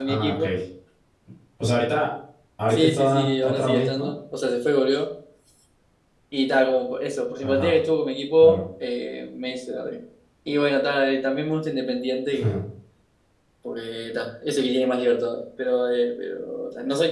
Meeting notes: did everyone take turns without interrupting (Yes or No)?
No